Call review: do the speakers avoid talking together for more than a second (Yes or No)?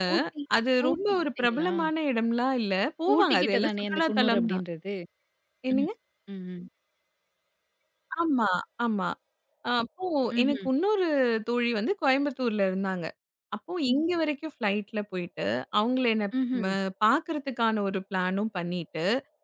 No